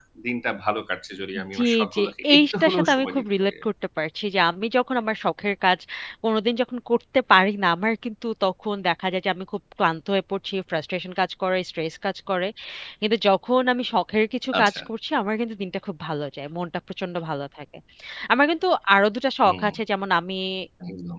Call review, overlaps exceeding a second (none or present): present